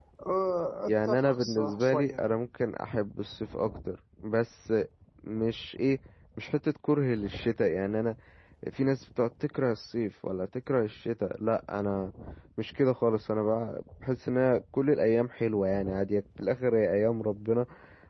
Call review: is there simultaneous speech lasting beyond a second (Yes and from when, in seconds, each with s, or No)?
Yes, from 0.8 s